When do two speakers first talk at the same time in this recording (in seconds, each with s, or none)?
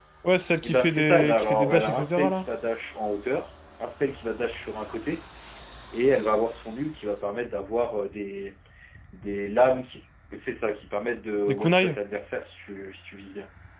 0.6 s